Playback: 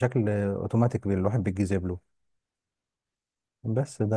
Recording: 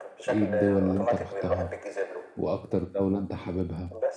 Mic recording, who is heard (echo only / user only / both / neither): both